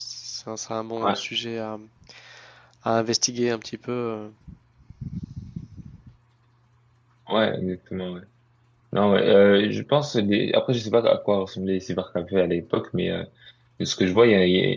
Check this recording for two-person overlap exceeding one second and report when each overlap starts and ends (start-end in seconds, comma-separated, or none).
none